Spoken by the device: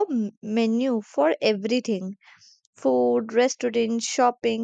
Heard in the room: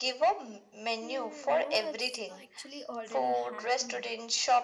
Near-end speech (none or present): present